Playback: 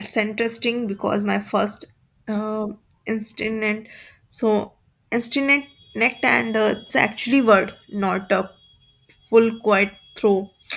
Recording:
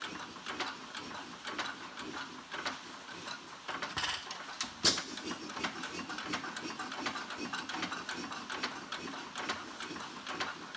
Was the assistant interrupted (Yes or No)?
No